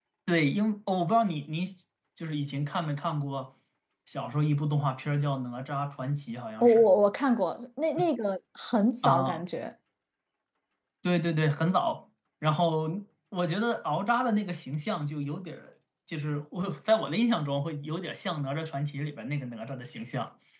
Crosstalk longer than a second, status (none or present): none